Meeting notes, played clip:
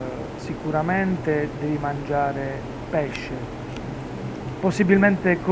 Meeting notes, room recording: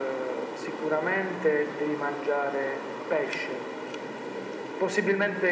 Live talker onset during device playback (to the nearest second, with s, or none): none